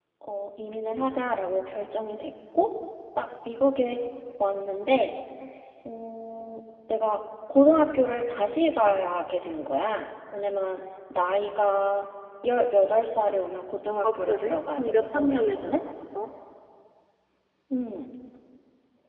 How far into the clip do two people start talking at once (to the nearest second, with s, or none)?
14 s